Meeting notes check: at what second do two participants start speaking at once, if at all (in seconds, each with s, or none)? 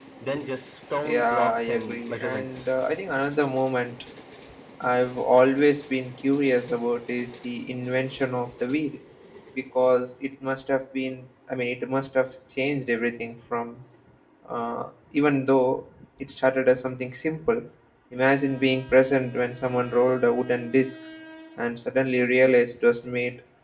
1.0 s